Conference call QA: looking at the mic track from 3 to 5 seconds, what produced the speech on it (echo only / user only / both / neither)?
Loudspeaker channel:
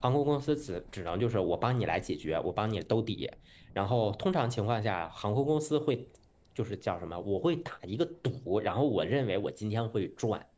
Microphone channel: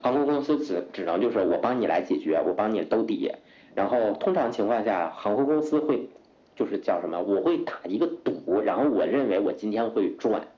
echo only